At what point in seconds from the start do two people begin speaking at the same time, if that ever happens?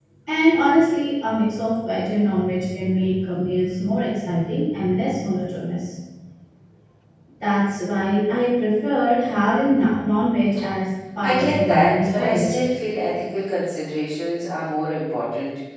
11 s

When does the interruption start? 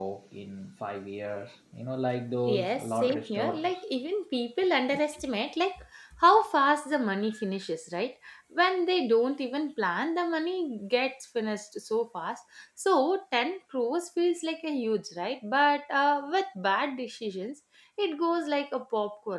2 s

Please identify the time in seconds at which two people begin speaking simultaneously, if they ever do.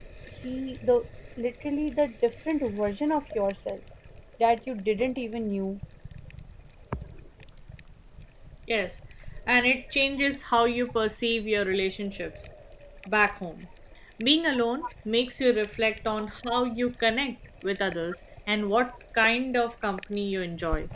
none

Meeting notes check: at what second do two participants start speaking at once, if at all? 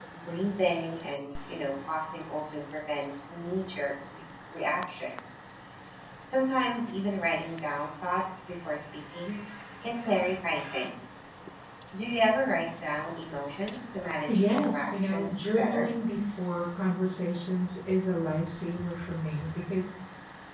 14 s

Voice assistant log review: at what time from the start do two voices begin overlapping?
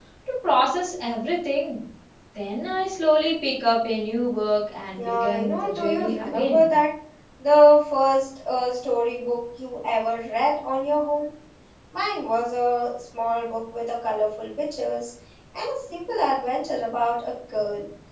5 s

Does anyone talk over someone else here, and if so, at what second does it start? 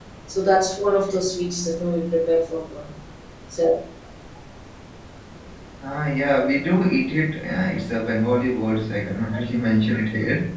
none

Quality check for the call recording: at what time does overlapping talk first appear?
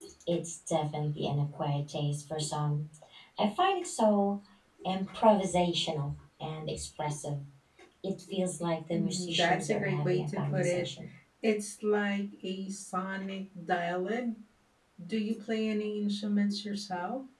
9 s

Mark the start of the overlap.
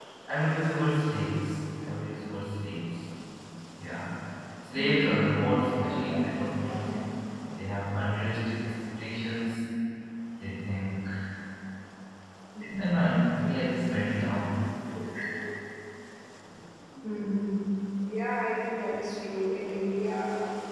5 s

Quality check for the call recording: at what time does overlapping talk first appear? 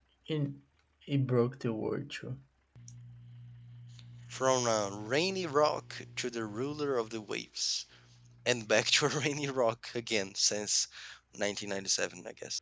none

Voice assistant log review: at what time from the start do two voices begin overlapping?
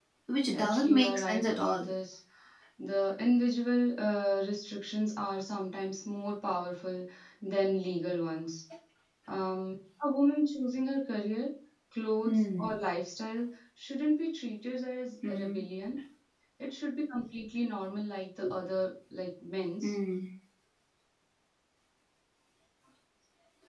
1 s

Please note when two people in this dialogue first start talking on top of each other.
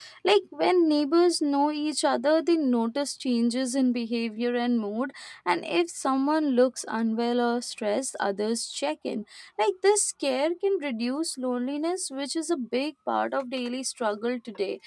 none

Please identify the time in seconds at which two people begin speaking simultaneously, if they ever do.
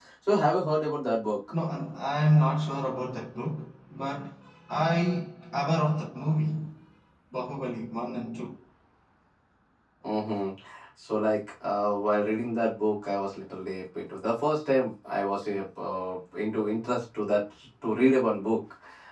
none

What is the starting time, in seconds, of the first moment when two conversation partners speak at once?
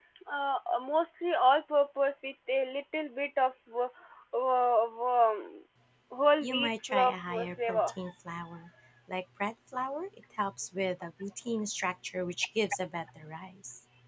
6 s

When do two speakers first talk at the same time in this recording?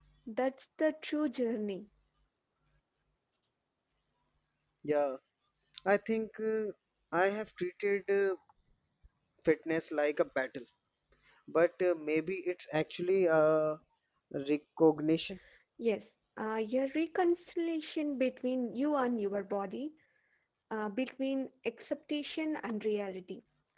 none

